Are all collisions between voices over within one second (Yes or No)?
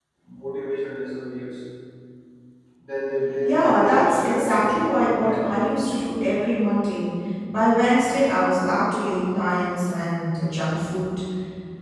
No